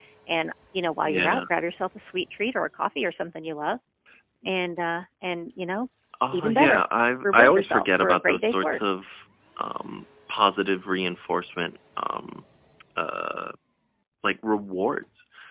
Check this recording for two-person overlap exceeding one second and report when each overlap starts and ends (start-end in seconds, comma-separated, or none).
7.2-8.8